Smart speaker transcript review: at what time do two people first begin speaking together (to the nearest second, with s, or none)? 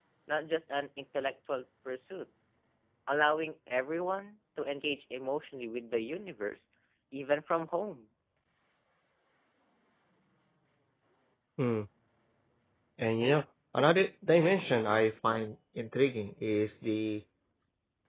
none